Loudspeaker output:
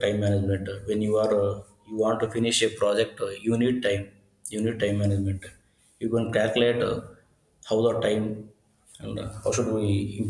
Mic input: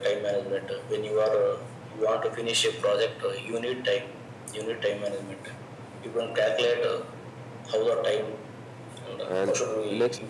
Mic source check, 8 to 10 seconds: both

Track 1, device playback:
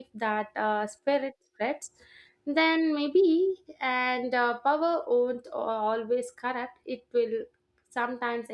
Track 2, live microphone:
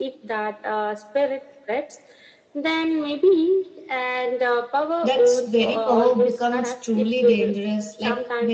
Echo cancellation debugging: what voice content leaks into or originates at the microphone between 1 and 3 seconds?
echo only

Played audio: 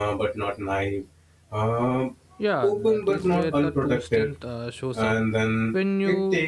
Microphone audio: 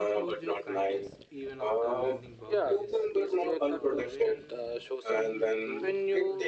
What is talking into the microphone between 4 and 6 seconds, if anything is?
both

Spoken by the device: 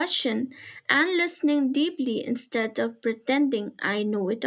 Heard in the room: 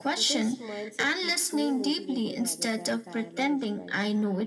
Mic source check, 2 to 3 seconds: both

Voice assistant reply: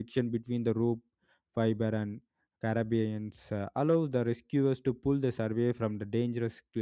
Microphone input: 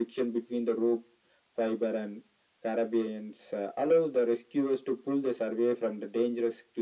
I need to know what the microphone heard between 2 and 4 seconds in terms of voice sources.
echo only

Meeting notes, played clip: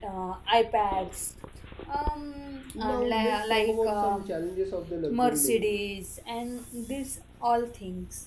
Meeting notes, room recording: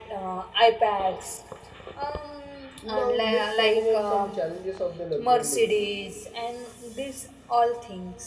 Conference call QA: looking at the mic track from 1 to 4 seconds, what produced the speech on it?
echo only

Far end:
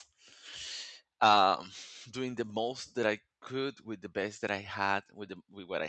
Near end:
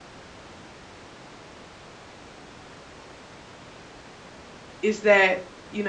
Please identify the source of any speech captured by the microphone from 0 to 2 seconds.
neither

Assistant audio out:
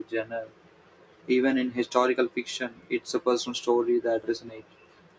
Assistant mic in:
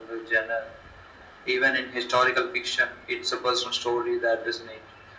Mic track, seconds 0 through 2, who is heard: echo only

